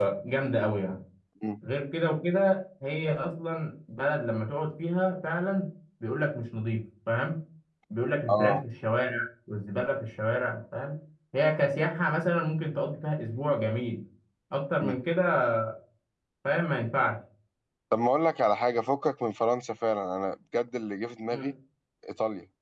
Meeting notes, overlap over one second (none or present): none